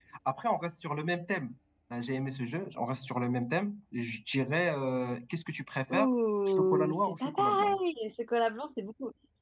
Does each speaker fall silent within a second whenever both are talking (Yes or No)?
No